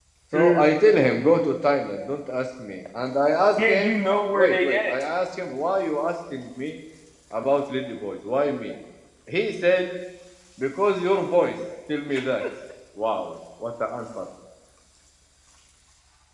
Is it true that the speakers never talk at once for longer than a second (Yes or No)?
No